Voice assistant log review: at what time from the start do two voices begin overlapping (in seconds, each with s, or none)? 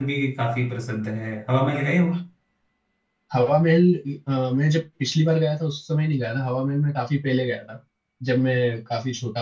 none